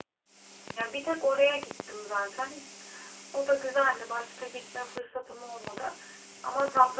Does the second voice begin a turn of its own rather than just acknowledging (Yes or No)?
No